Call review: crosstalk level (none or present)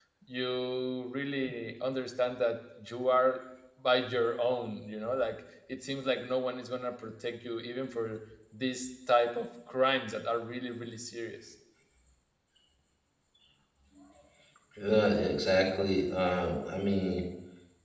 none